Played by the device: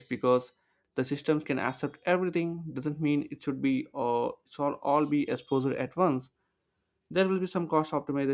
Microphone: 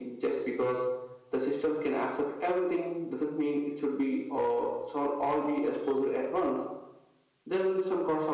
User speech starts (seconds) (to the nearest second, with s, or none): none